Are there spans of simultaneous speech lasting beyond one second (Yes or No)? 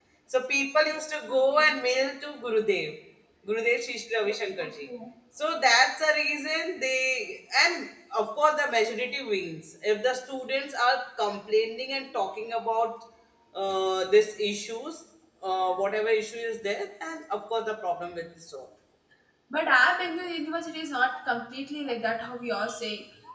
No